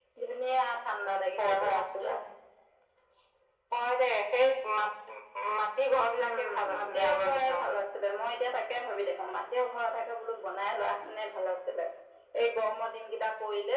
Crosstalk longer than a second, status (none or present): present